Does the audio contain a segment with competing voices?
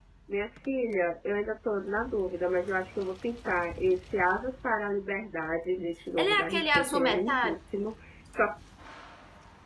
Yes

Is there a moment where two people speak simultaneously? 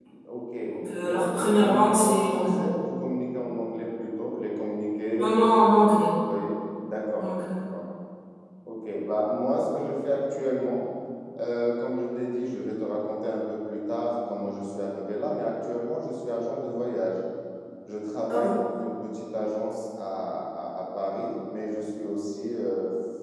Yes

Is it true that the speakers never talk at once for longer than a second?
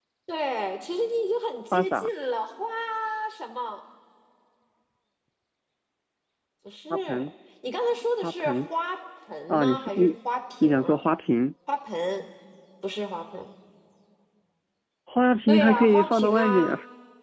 No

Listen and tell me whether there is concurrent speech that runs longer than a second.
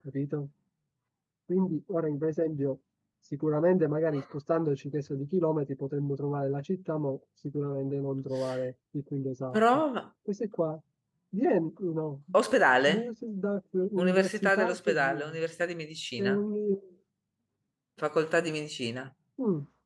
Yes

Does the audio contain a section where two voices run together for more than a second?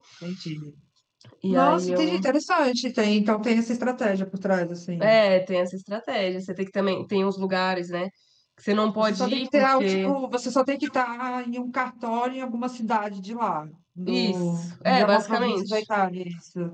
Yes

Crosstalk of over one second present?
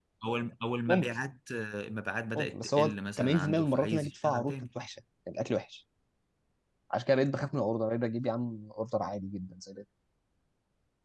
Yes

